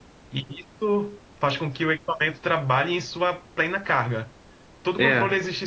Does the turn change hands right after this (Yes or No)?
No